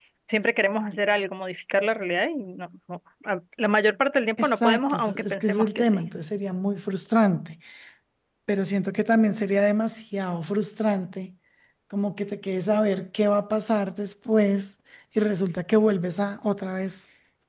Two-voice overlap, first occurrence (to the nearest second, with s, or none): 4 s